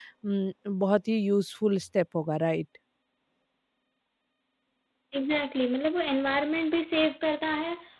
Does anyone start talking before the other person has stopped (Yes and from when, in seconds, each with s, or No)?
No